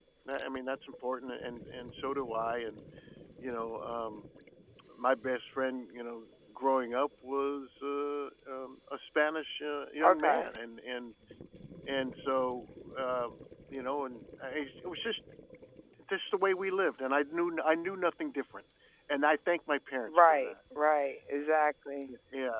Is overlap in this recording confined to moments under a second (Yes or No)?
Yes